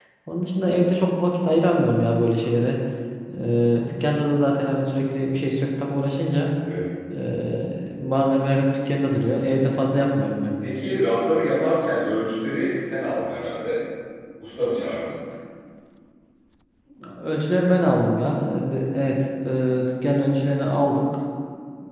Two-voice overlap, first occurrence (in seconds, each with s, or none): none